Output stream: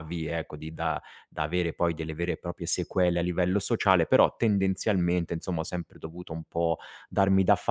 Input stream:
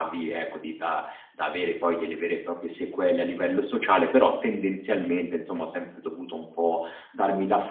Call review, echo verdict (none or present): present